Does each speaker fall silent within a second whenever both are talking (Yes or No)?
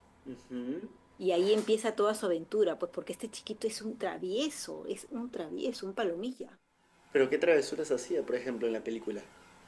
Yes